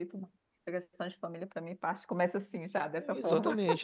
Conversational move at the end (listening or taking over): taking over